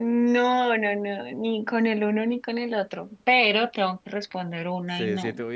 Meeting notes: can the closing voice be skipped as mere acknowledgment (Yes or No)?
No